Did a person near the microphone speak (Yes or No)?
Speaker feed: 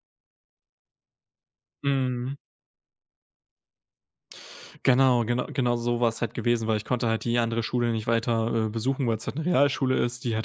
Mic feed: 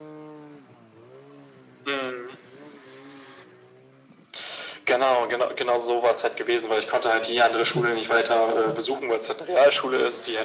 Yes